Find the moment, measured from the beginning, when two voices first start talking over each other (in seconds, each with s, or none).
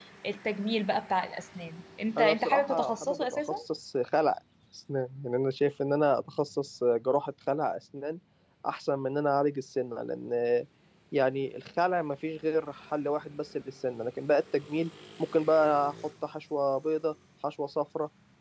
2.2 s